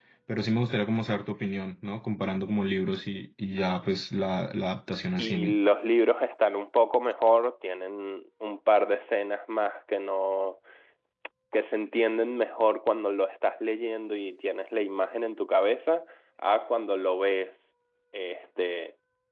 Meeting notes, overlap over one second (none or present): none